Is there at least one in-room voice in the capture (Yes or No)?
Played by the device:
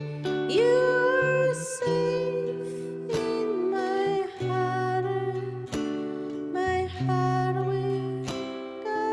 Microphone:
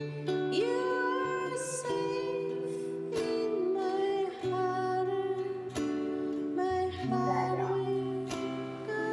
Yes